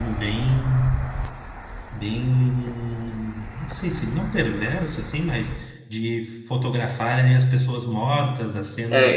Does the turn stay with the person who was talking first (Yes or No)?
No